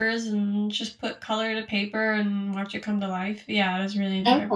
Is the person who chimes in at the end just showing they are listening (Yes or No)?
No